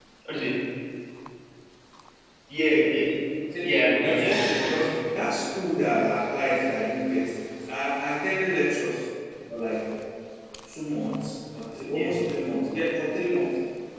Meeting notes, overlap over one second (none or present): present